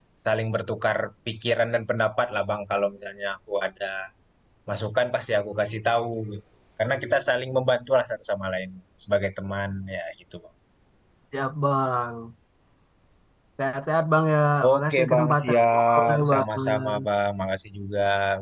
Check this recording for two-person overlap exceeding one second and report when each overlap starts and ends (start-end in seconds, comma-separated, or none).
14.7-17.0